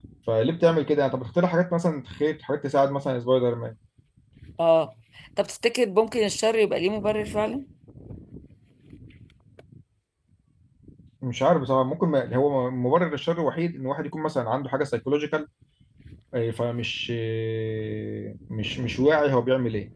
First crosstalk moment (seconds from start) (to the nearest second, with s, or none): none